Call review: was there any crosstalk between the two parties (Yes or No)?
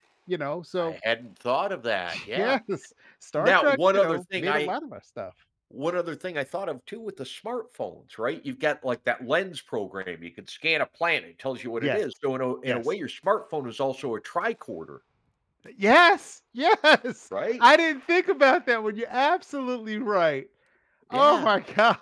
Yes